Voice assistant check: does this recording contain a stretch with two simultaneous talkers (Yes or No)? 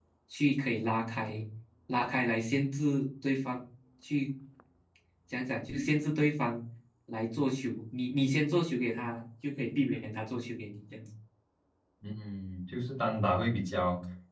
No